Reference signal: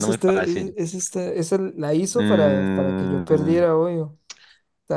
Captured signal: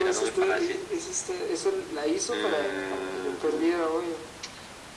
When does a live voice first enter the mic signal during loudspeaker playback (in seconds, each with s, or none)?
none